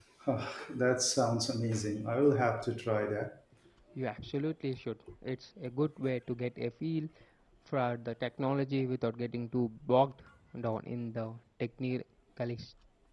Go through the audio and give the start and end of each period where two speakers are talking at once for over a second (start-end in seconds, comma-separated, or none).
none